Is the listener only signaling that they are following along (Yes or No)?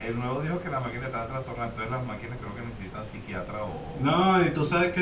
No